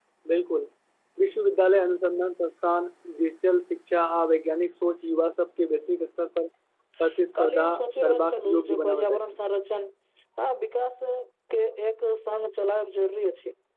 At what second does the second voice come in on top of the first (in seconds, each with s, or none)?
7.3 s